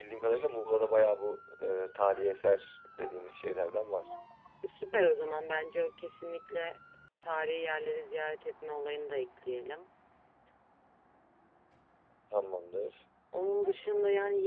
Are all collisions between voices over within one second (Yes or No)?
Yes